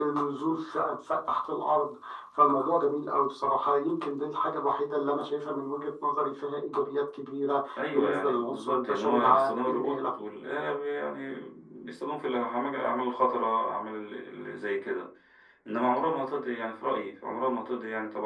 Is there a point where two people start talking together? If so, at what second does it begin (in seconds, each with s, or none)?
7.8 s